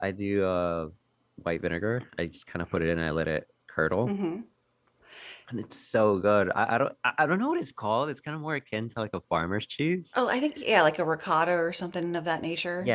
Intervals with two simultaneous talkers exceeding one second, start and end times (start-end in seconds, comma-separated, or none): none